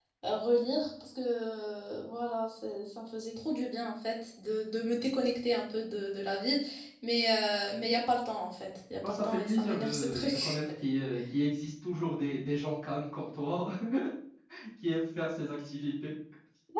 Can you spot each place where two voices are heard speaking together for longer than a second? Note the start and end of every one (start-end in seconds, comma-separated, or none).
9.1-10.6